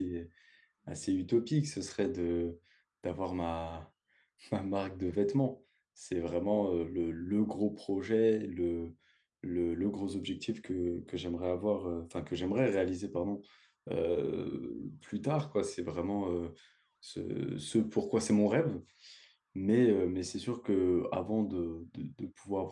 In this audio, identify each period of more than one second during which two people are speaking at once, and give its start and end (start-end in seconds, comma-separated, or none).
none